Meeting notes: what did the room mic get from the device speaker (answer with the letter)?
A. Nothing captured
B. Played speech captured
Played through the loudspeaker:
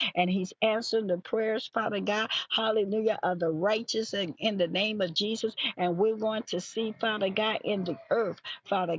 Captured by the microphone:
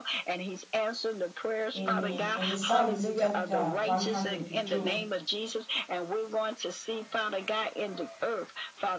B